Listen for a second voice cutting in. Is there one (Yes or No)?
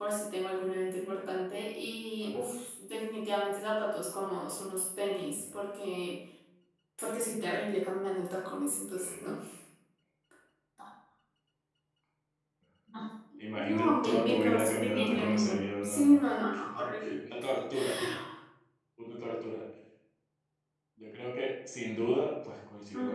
Yes